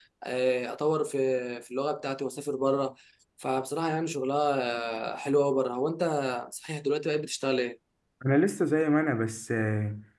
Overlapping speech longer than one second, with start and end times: none

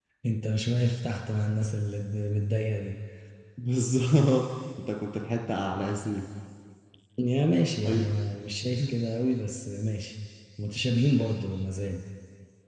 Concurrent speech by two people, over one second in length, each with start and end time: none

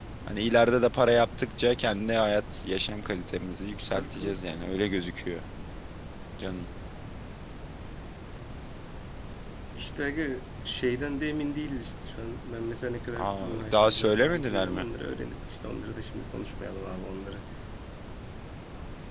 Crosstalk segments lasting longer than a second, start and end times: 13.2-14.9

